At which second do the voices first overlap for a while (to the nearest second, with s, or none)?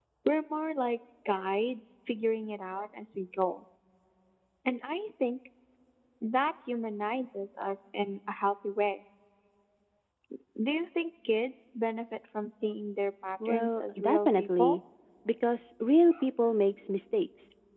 13 s